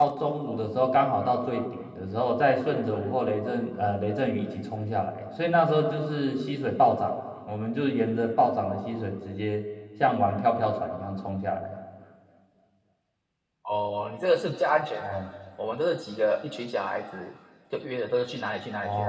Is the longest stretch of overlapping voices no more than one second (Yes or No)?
Yes